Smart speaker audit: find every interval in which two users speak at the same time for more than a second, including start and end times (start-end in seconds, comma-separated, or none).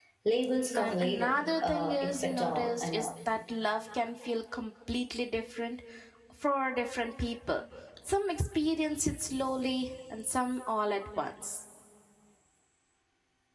0.8-3.1